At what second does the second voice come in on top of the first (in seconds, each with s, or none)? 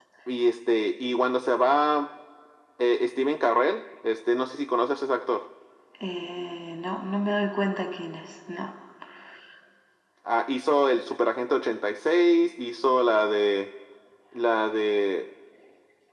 none